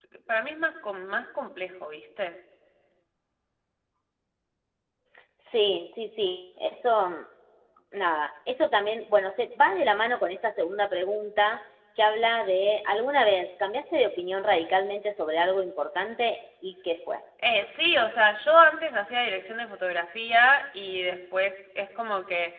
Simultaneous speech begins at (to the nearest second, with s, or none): none